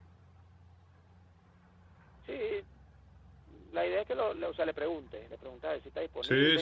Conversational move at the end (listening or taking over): taking over